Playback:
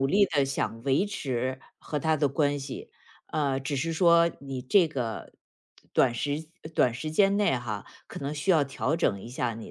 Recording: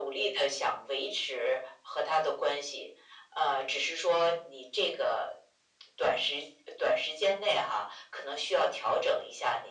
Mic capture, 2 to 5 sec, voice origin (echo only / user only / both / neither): echo only